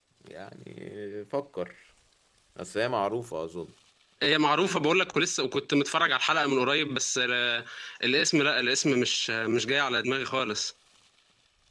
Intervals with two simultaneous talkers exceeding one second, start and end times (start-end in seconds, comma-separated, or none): none